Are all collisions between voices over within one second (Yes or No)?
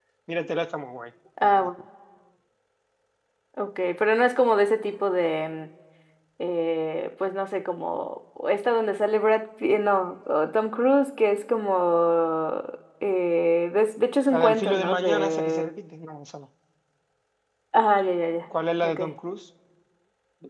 No